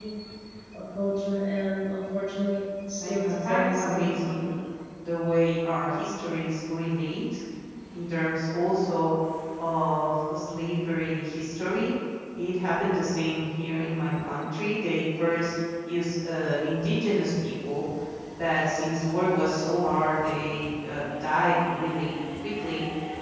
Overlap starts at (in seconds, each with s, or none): 3.0 s